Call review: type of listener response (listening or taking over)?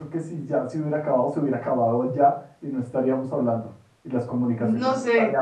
taking over